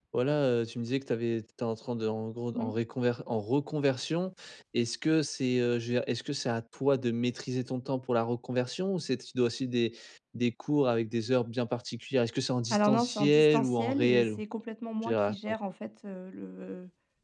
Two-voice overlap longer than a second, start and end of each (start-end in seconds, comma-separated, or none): 12.7-14.4